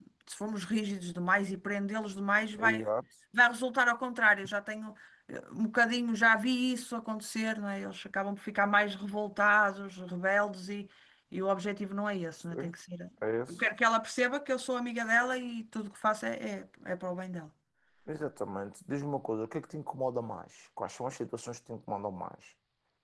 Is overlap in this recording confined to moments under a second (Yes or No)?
Yes